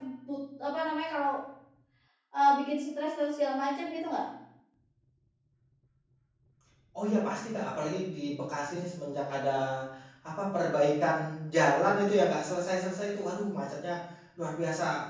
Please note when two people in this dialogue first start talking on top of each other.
none

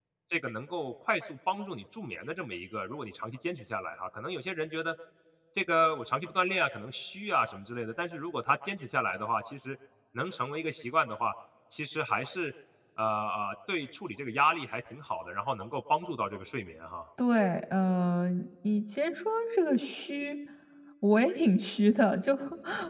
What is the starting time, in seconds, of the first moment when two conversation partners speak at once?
none

